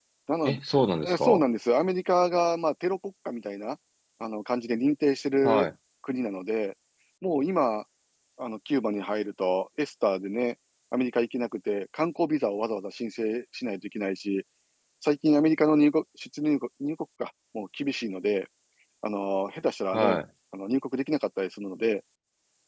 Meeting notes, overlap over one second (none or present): none